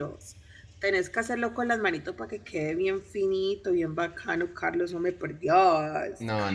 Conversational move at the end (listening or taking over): taking over